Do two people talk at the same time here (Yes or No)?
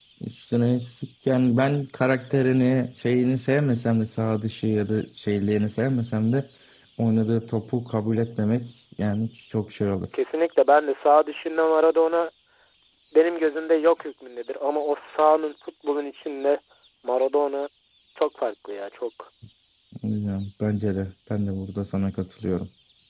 No